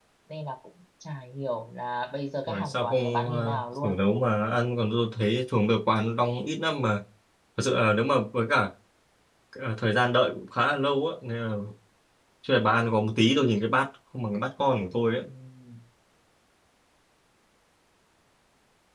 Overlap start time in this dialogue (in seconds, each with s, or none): 2.5 s